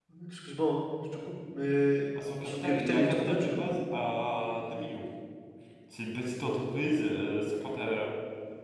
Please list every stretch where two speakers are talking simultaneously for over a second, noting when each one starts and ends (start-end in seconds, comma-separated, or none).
2.4-3.6